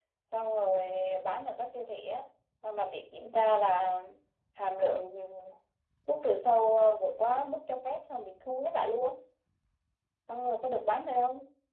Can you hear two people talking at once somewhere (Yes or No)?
No